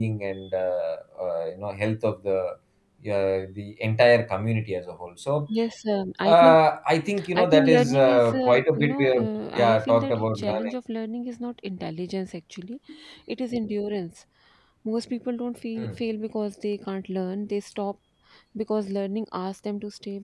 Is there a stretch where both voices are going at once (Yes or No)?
Yes